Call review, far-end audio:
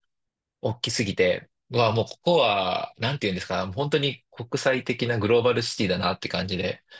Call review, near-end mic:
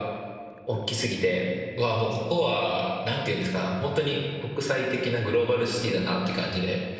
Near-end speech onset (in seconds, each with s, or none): none